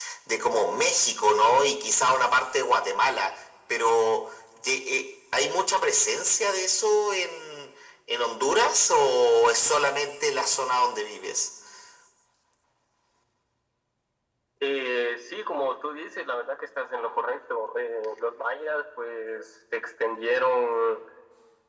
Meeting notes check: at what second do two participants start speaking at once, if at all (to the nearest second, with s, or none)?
none